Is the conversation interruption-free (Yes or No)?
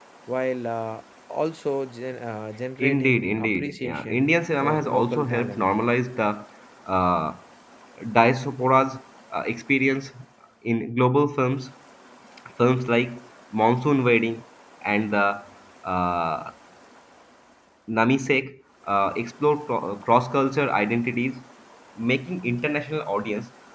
No